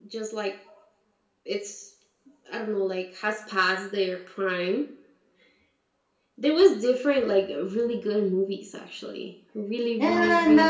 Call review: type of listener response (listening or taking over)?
taking over